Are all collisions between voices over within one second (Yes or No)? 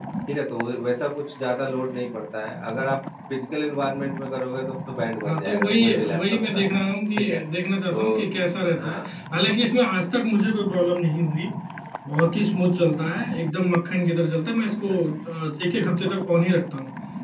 No